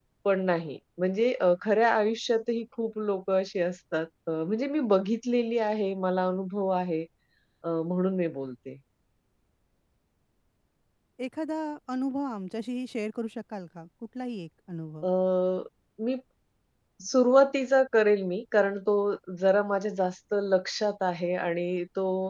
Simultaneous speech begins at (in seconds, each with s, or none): none